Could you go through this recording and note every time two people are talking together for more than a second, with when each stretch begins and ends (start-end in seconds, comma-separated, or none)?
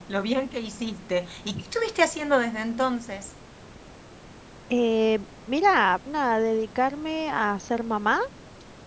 none